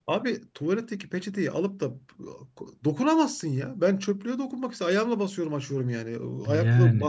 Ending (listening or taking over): listening